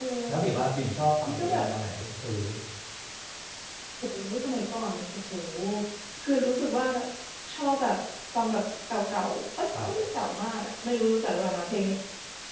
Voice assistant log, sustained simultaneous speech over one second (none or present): none